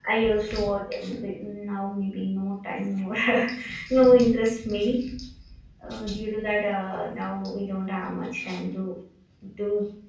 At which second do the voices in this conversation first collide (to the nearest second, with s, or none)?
none